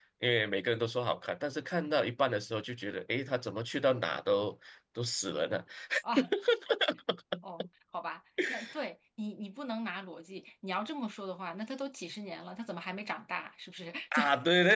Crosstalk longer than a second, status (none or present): none